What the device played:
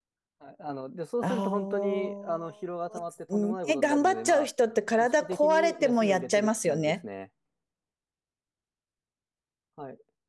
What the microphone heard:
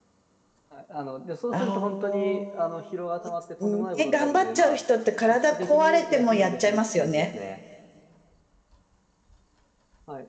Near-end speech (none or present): none